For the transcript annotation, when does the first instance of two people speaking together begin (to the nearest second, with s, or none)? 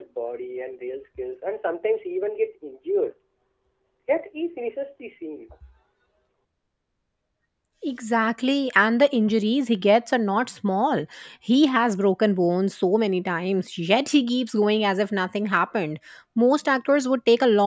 none